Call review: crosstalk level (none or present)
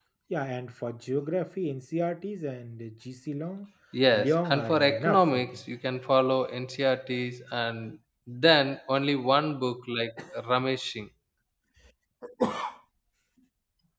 present